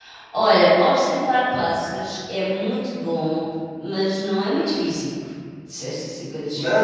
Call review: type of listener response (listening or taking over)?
taking over